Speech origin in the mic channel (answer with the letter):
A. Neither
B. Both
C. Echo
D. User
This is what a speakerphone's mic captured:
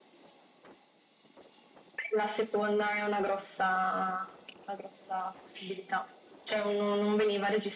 C